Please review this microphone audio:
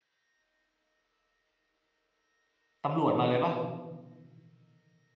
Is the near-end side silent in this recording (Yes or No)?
No